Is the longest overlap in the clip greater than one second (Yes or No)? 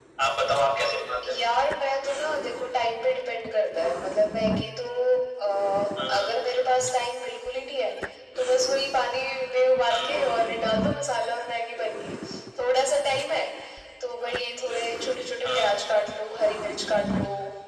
No